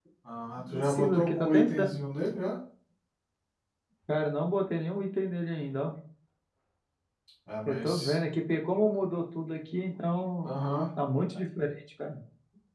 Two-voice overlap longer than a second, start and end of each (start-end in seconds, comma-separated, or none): 0.7-2.0